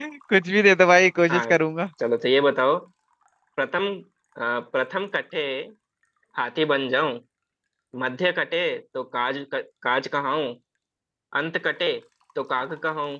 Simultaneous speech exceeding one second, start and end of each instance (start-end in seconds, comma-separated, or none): none